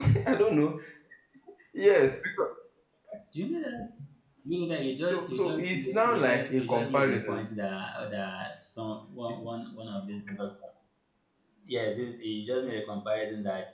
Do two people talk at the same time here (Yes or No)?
Yes